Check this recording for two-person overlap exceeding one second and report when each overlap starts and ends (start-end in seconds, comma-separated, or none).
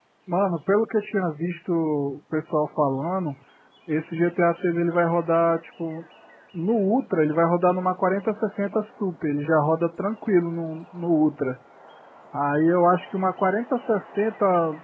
none